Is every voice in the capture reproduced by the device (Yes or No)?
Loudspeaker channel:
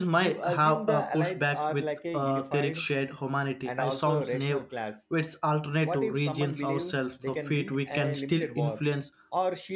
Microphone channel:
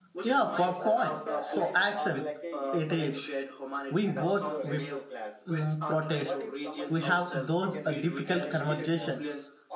No